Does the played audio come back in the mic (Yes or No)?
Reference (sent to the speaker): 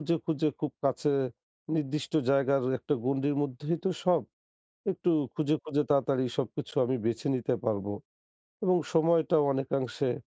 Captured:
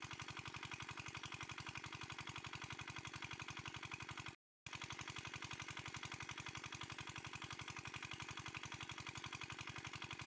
No